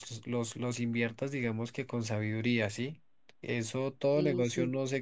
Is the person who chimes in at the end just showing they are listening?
Yes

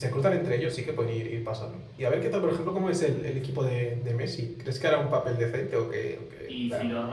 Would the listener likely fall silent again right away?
No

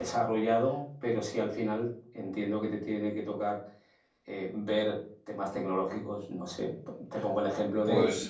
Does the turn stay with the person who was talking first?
Yes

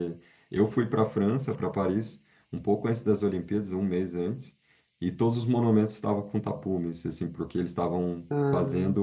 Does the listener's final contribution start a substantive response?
No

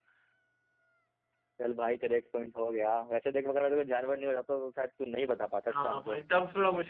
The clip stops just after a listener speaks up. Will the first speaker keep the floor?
No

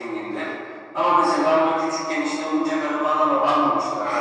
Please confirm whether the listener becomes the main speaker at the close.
No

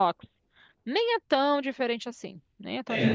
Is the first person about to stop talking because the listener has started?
Yes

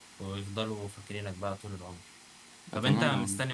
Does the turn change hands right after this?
No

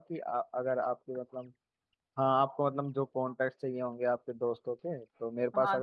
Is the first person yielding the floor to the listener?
Yes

